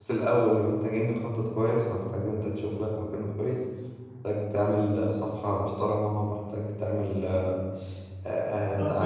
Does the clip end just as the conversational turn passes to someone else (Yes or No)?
Yes